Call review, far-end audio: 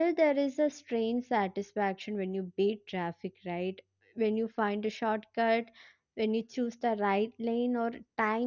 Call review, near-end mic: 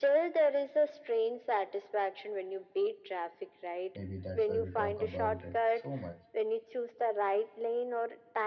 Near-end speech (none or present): present